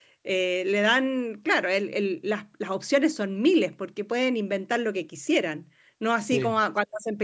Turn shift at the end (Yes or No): No